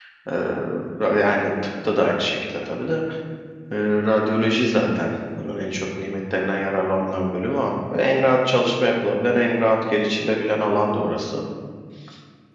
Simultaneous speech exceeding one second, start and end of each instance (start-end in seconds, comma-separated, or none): none